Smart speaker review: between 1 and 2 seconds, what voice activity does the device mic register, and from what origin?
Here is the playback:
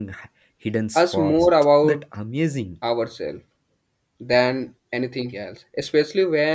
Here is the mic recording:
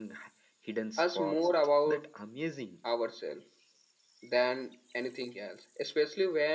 echo only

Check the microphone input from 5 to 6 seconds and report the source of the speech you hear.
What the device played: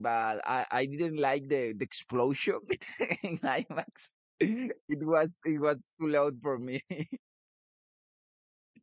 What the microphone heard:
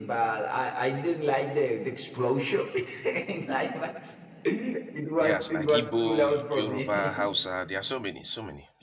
both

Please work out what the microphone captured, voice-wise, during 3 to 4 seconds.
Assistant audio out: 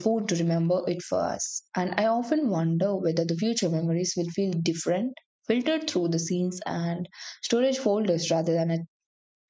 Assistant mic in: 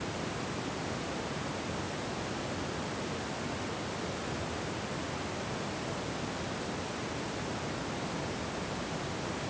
neither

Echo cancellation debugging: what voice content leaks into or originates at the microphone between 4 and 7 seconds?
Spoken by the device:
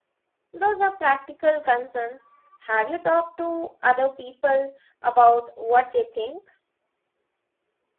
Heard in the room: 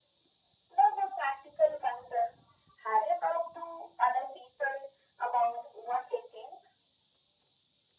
echo only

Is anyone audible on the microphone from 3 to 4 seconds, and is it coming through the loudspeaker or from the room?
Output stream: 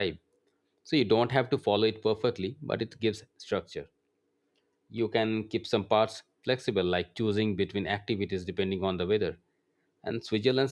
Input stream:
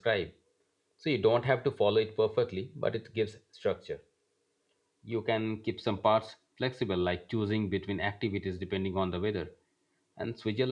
echo only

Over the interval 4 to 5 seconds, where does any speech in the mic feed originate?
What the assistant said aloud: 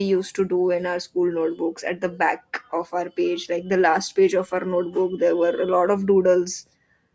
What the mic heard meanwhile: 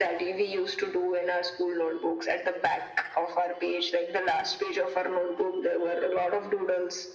echo only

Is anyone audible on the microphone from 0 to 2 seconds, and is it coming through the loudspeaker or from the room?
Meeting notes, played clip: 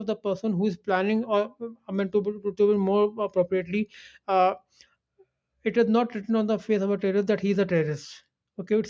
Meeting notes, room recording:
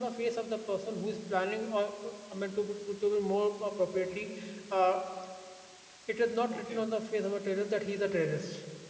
echo only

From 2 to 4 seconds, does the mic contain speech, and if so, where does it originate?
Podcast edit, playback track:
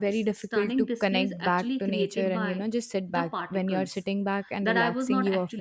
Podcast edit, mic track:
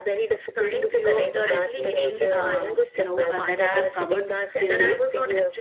both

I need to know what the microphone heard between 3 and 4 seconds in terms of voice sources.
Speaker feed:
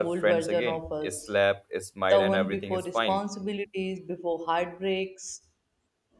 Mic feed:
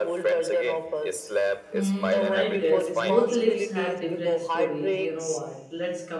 both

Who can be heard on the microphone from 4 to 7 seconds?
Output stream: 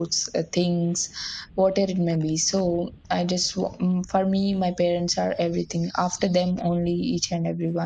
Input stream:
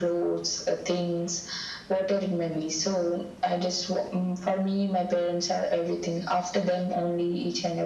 echo only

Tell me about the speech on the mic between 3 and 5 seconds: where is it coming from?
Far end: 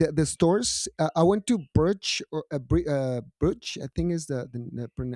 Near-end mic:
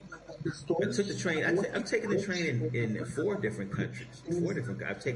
both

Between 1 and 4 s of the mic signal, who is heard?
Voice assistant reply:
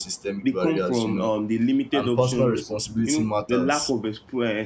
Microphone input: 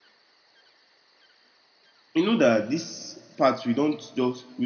user only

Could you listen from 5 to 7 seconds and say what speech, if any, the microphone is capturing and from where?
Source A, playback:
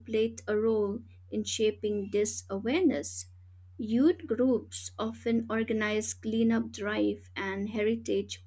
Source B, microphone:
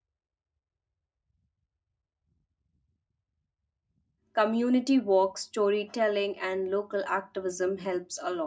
user only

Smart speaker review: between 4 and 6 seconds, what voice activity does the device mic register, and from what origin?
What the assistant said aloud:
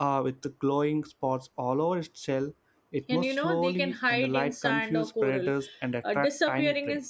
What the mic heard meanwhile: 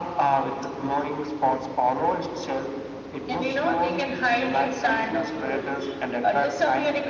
echo only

